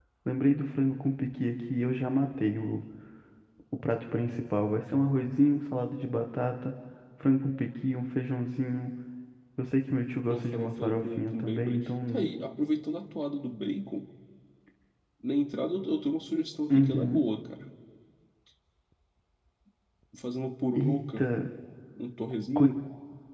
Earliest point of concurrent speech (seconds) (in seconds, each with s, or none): 10.3 s